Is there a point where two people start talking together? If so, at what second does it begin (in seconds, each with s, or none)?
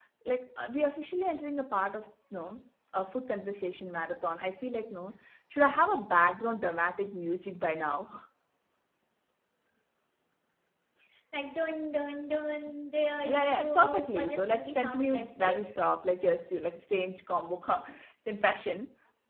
13.2 s